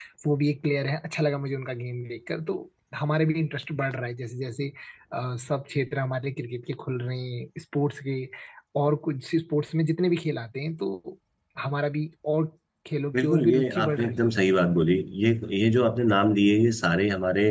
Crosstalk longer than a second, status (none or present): present